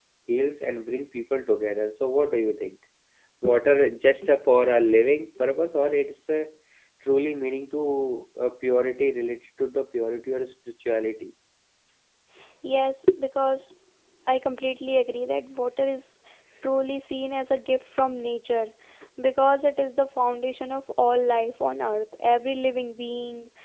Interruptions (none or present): none